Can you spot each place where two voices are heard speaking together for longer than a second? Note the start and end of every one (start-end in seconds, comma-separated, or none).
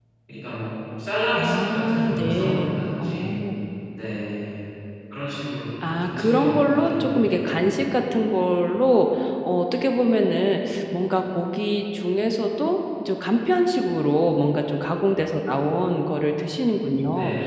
1.3-3.4, 6.0-7.6